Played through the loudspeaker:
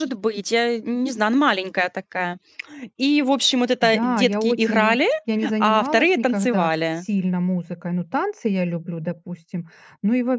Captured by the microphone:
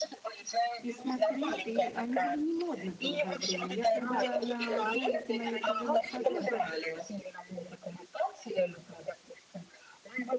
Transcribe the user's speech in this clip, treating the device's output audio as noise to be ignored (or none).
и смотреть, и они были не модны долгое время. Я когда на ролики на "Ютубе" нахожу, это